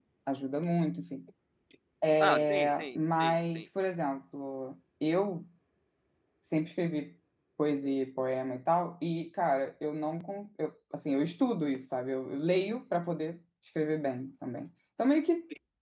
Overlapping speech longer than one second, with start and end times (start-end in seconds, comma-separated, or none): 2.2-3.6